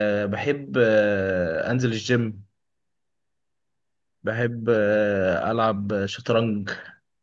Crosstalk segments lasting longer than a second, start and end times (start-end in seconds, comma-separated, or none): none